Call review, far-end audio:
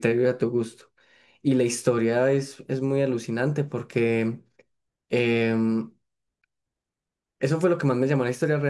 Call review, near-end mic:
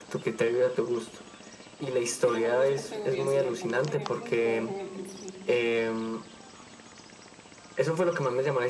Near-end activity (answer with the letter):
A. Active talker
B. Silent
A